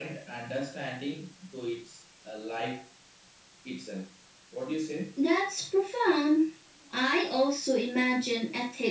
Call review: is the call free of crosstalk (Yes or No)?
Yes